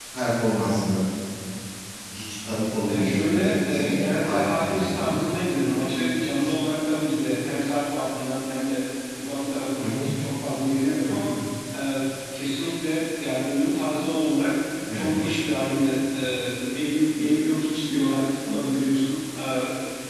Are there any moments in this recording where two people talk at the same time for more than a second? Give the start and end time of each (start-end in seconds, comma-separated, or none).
2.9-5.2